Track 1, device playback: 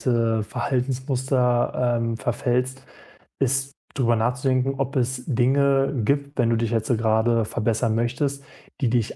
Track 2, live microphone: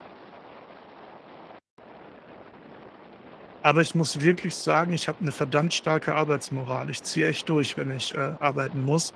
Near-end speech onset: 3.6 s

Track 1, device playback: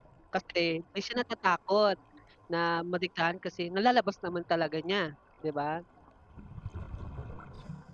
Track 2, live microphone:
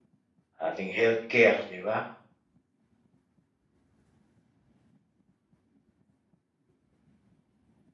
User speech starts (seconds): 0.6 s

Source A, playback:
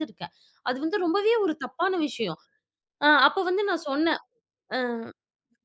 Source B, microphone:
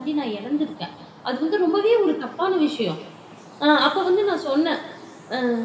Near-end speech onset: none

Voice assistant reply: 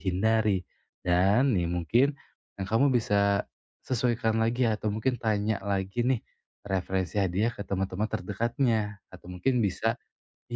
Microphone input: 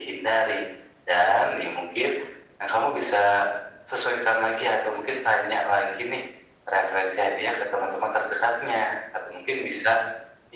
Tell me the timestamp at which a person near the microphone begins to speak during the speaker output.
none

